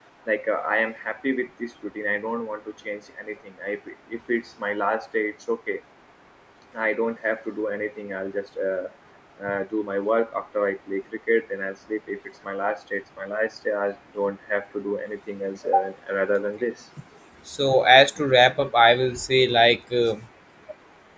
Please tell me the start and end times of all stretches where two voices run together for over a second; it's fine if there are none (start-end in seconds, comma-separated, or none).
none